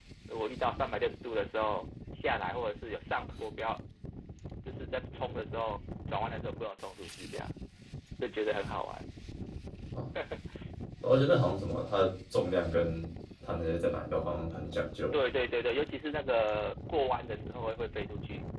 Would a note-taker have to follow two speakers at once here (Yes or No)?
No